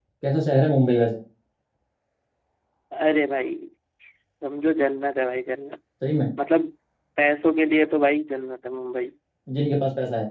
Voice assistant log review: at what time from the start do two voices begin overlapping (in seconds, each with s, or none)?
none